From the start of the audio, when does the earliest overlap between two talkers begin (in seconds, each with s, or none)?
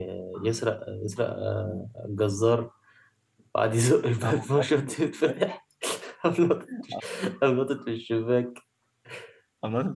4.2 s